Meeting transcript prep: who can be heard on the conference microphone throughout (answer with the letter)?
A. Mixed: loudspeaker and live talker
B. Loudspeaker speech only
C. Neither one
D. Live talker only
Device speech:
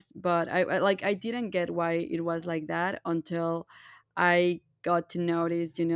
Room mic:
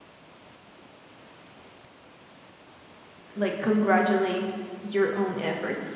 D